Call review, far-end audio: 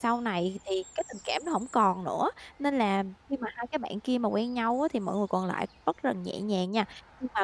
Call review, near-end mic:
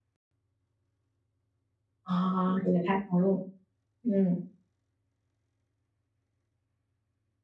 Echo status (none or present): none